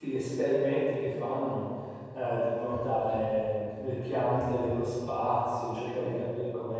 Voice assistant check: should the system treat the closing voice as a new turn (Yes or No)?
No